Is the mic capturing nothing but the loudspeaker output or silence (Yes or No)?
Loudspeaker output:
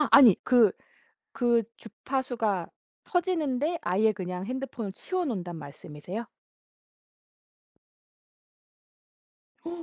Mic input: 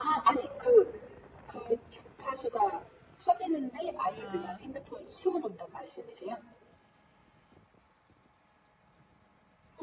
No